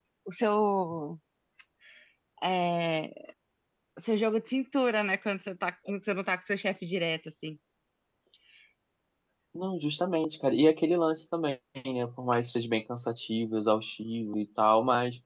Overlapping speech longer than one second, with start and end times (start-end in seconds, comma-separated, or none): none